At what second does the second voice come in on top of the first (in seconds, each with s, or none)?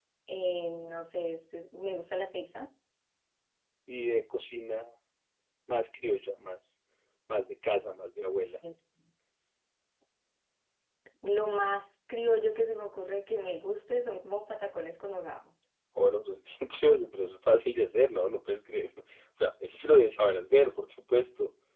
none